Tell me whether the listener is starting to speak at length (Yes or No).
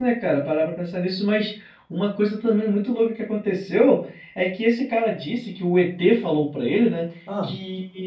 No